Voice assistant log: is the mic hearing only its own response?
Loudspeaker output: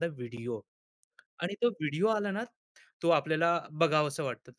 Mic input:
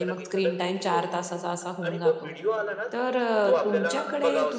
No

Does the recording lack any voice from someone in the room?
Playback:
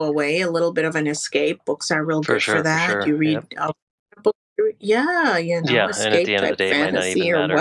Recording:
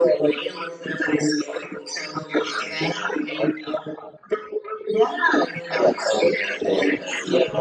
Yes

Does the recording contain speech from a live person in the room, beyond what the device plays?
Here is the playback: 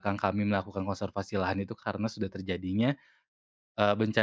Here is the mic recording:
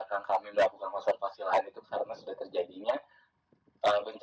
No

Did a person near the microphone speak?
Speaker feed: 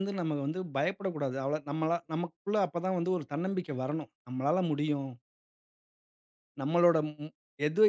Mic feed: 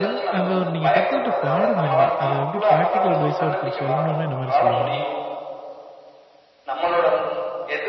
Yes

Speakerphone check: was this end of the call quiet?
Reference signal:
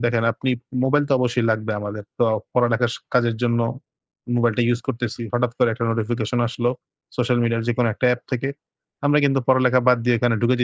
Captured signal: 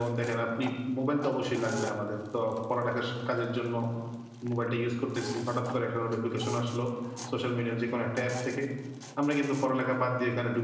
Yes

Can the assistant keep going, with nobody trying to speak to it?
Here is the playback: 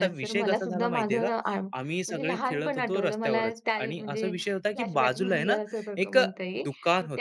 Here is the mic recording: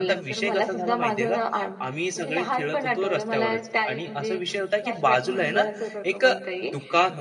Yes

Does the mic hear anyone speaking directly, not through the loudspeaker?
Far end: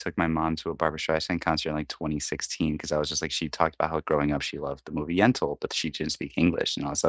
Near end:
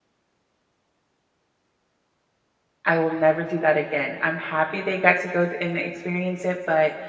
Yes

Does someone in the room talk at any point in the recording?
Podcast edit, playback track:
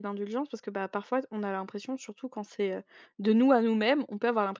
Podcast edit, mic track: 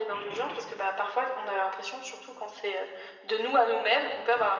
No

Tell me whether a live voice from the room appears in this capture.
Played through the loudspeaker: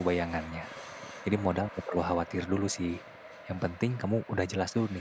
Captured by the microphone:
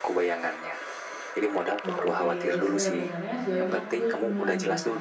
Yes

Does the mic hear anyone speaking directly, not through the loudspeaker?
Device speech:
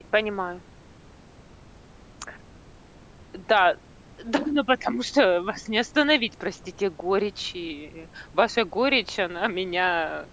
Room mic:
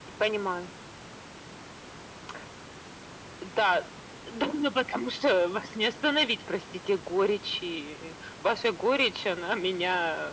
No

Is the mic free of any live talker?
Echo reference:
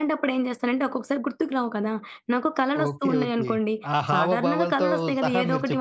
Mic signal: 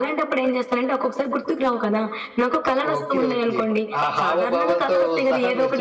Yes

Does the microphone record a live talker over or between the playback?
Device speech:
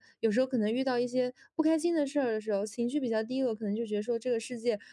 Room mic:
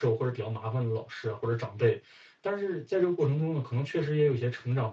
Yes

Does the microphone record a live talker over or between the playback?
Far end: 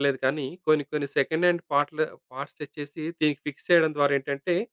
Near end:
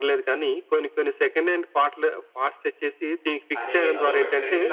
Yes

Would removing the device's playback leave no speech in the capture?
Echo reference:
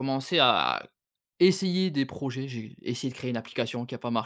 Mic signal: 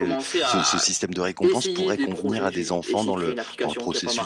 No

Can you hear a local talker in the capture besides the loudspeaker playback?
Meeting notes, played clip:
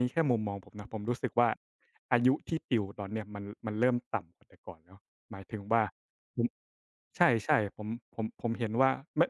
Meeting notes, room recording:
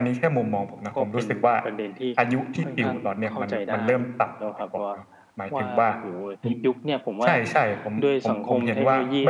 Yes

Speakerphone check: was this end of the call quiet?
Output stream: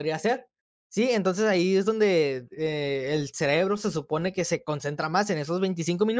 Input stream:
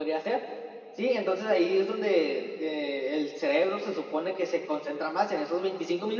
Yes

